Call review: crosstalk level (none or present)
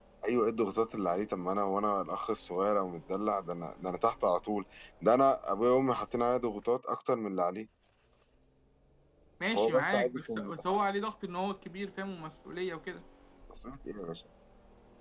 present